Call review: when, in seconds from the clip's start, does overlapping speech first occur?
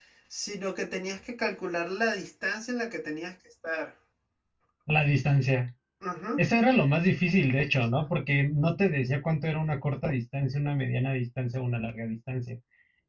none

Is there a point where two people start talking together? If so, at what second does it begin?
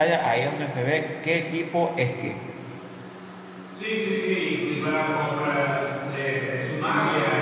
none

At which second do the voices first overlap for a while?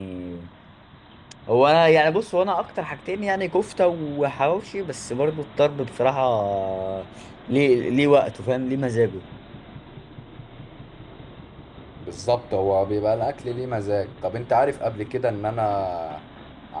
none

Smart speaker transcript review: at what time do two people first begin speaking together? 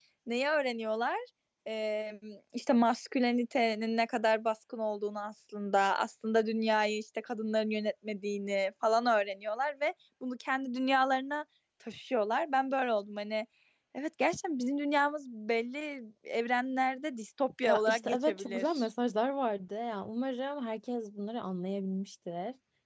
17.6 s

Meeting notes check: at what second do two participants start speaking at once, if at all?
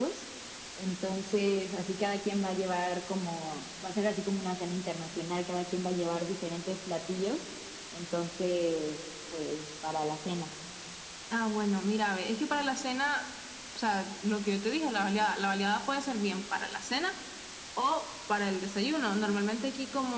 none

